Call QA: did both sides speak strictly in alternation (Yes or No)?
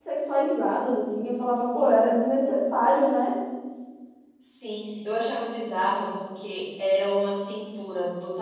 Yes